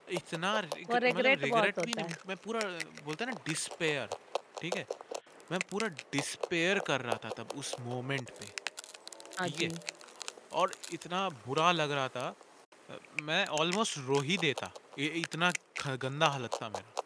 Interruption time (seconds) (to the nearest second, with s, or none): 1 s